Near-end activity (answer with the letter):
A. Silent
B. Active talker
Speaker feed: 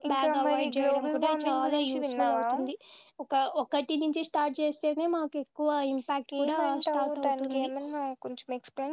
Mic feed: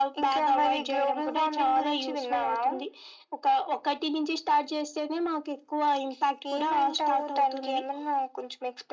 A